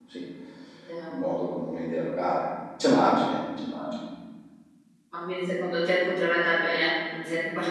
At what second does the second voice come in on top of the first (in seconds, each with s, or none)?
none